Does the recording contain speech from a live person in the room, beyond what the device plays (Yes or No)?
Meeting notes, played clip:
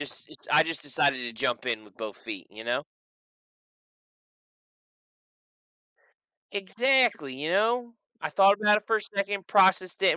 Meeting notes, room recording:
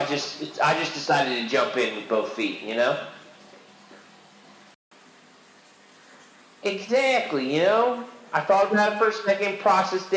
No